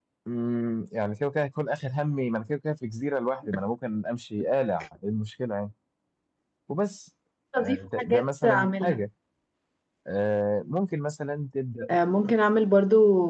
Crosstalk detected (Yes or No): Yes